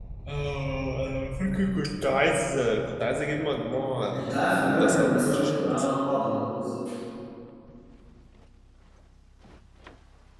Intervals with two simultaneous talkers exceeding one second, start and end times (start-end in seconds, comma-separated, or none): 4.1-5.8